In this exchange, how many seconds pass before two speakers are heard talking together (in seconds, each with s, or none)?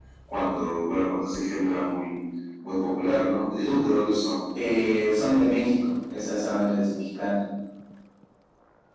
none